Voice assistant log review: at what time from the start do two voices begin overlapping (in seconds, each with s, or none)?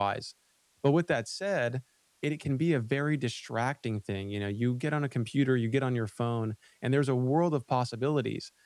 none